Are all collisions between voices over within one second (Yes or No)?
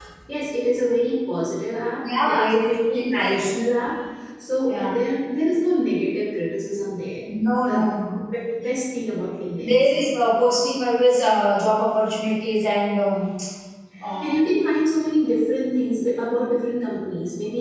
No